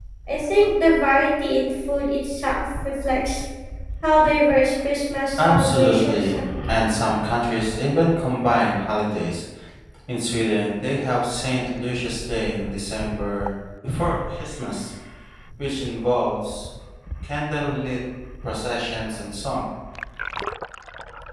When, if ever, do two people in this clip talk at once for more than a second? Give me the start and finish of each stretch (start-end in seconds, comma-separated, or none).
5.4-6.9